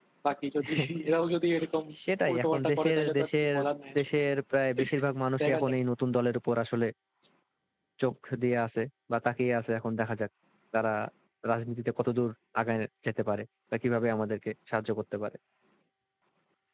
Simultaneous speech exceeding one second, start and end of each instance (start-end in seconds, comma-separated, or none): 2.3-3.5